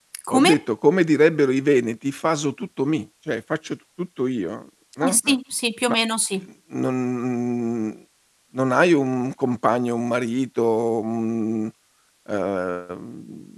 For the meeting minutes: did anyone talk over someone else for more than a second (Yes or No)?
No